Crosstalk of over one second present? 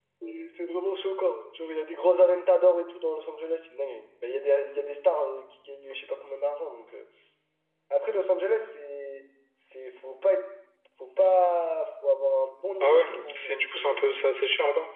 Yes, from 12.8 s

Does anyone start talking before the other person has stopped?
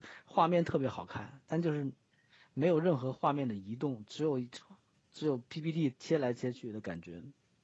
No

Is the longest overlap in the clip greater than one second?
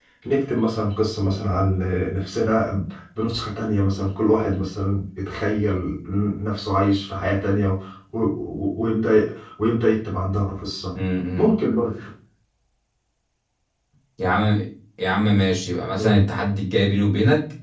No

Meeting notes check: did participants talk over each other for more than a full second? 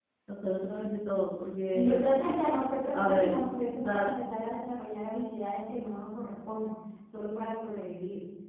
No

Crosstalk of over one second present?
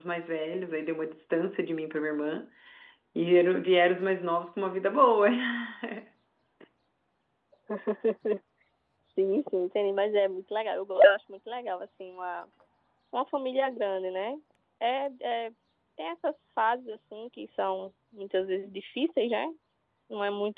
No

